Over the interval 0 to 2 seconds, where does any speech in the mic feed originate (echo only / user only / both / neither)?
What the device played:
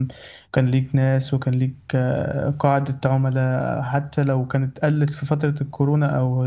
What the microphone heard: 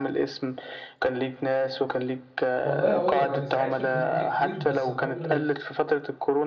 echo only